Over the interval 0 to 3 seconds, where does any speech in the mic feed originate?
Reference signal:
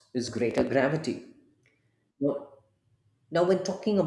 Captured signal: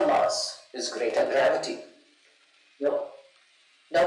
echo only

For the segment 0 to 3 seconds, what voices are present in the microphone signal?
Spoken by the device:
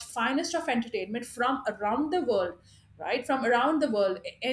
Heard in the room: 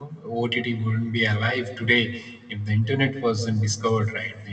user only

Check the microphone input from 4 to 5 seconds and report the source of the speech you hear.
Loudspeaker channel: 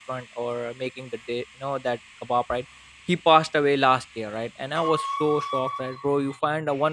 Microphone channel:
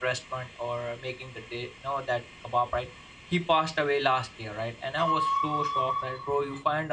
echo only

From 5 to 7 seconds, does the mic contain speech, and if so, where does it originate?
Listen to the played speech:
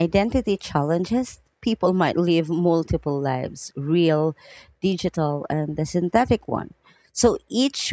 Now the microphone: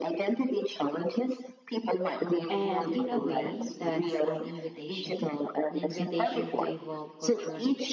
both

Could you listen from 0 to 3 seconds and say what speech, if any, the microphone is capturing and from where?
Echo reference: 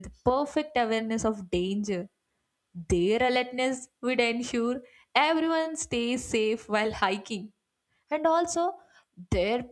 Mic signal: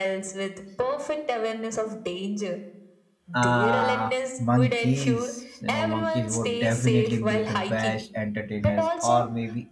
echo only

